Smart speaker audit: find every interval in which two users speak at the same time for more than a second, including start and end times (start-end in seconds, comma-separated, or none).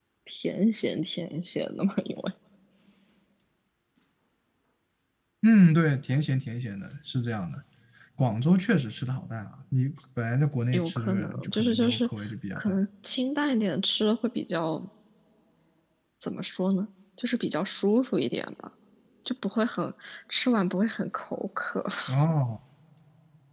10.7-12.1